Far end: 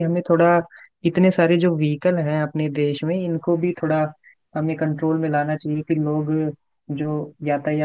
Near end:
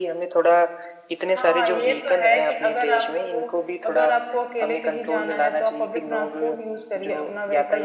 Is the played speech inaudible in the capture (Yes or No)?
No